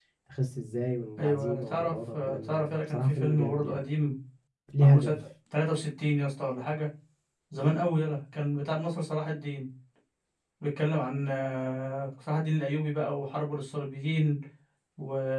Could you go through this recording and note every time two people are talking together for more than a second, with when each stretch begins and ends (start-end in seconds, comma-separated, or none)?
1.2-3.8